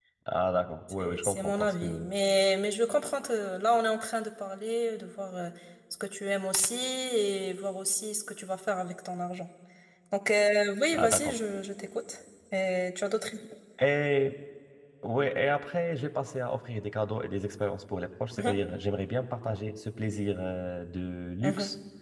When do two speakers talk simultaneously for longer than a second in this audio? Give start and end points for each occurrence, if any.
0.9-2.1

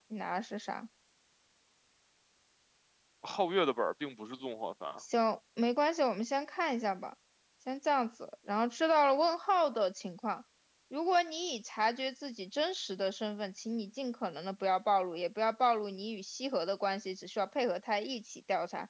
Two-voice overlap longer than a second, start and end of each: none

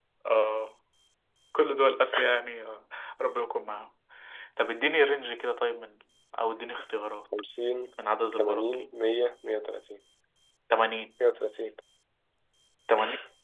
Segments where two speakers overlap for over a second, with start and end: none

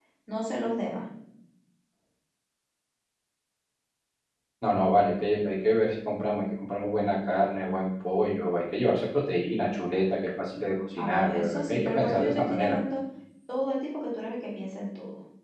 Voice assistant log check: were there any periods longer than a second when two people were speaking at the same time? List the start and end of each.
11.0-12.8

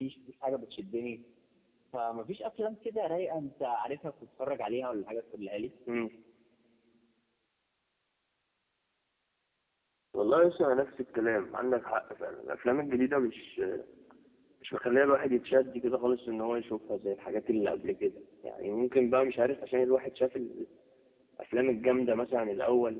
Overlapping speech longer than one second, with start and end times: none

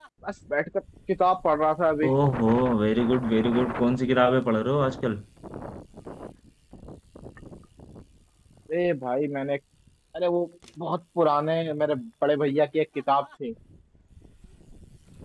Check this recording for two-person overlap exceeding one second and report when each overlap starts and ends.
none

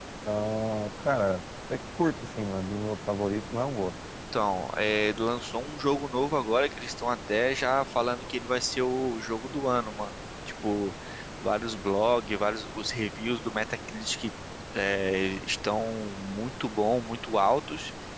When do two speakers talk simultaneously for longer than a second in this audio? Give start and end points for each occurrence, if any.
none

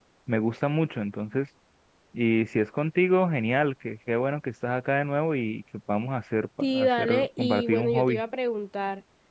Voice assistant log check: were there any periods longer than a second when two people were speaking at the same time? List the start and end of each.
6.6-8.2

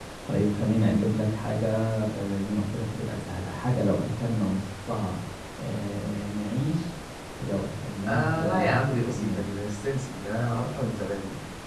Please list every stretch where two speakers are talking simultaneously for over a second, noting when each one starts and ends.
8.1-9.4

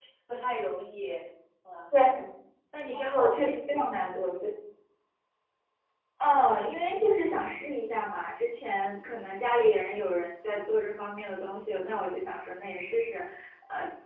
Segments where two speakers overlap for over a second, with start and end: 2.9-4.3

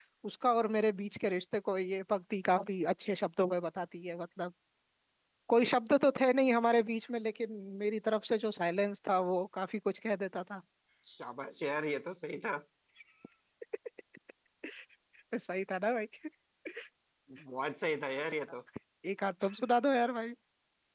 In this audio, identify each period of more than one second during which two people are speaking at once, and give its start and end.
none

